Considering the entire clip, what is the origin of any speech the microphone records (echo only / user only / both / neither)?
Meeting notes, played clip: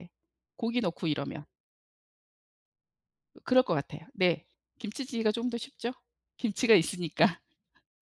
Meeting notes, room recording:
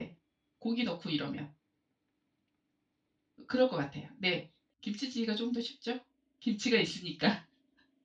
echo only